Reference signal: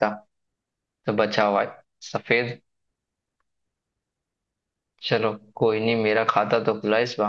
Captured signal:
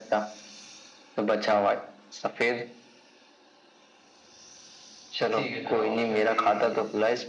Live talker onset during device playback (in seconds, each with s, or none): 5.3 s